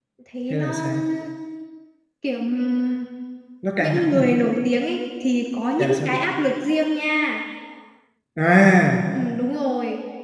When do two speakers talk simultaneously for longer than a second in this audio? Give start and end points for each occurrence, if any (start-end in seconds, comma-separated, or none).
none